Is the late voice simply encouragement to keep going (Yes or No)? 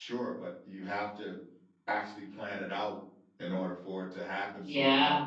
No